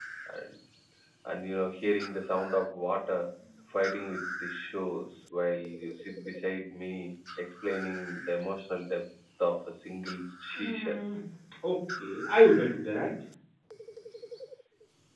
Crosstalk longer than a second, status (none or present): none